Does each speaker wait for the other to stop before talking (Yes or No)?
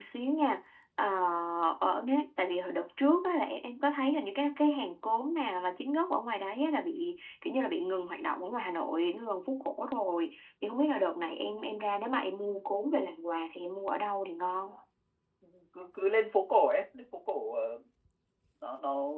Yes